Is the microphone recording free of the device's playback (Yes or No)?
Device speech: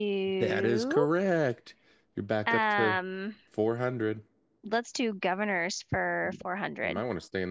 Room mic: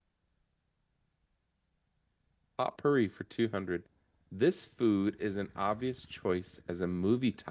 Yes